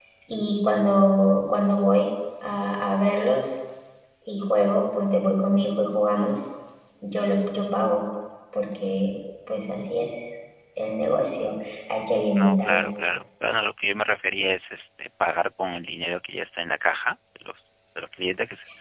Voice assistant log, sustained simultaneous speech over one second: none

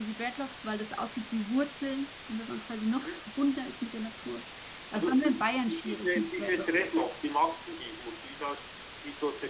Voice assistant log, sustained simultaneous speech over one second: present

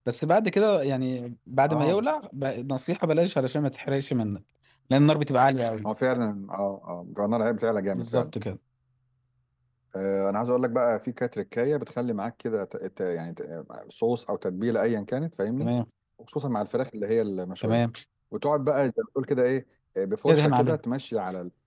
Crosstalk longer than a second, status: none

